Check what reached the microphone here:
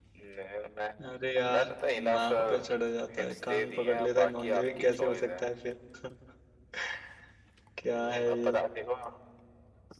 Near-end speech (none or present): present